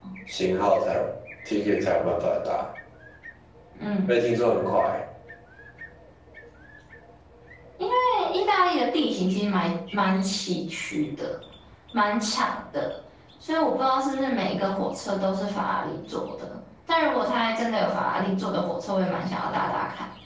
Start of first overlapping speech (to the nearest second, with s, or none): none